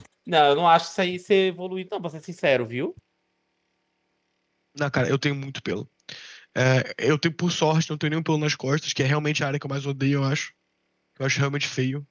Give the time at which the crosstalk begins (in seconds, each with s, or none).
none